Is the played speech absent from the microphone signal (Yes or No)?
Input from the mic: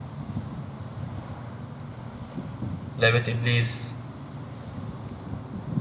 Yes